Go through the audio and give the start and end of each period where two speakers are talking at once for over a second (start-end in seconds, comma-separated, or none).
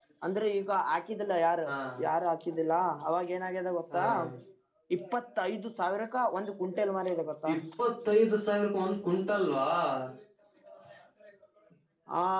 none